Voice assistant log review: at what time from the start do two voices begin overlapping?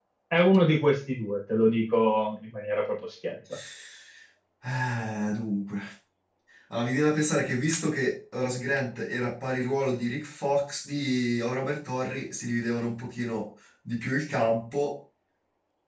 none

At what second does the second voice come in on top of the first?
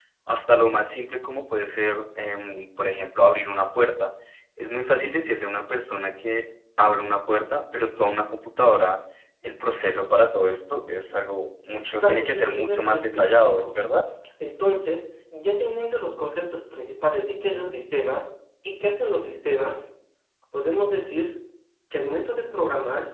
11.7 s

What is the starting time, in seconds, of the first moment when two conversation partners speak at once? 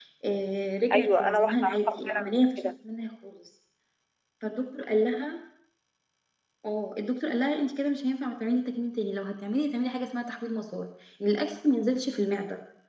0.9 s

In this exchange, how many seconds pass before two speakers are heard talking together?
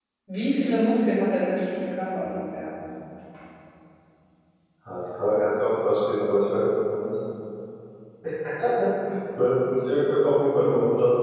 none

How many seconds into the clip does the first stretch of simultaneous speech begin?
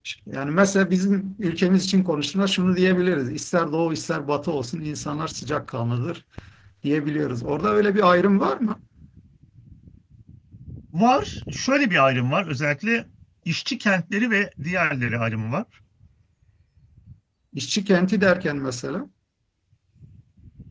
none

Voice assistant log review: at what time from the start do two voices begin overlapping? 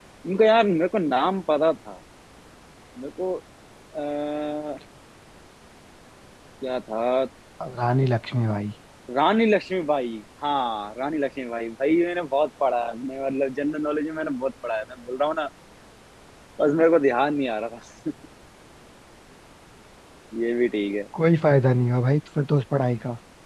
none

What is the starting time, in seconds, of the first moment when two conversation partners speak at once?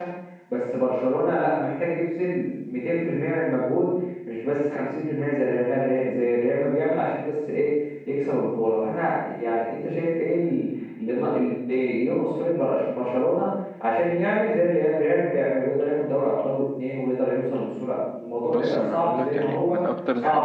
18.5 s

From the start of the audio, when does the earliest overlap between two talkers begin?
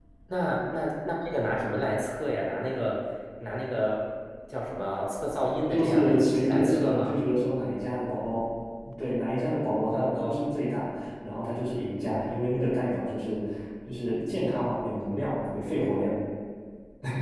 5.7 s

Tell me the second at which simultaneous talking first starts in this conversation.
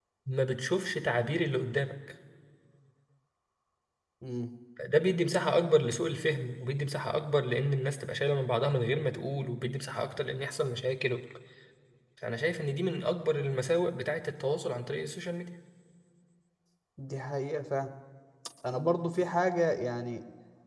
none

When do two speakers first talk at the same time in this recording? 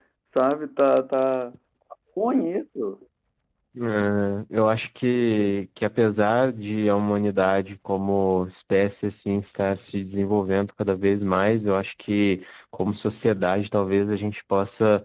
none

